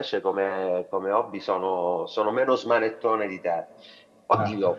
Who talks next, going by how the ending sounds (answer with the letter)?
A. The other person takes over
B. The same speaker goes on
B